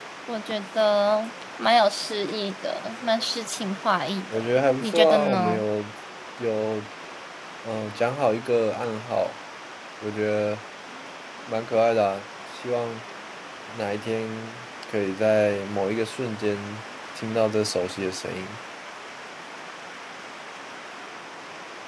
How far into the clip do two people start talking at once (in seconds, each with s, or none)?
4.3 s